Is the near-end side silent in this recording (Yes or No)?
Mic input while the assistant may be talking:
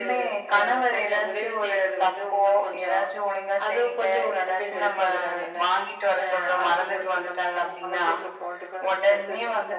Yes